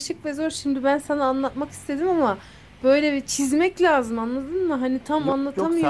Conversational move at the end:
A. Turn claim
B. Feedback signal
A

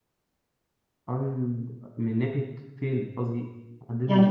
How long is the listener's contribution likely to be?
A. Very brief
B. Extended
B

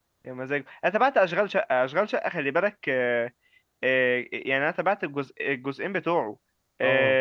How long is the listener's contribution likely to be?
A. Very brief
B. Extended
A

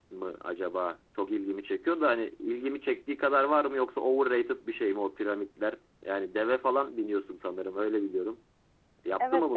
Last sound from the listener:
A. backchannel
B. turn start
B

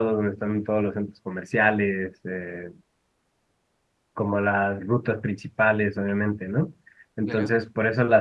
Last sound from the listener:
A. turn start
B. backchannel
B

